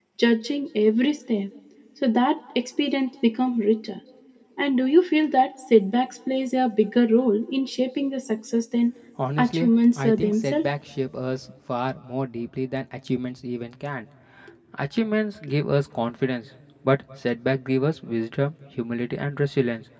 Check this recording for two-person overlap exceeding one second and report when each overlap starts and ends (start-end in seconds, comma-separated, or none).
9.4-10.7